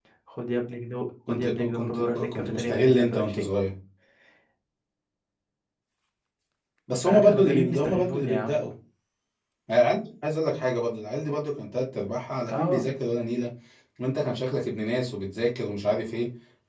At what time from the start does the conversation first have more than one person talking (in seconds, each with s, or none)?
1.3 s